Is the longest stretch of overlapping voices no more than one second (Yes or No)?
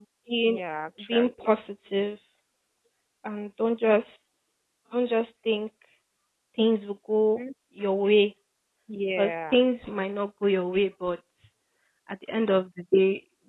Yes